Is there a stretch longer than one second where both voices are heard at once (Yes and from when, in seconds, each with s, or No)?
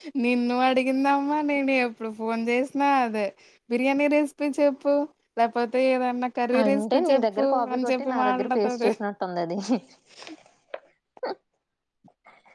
Yes, from 6.5 s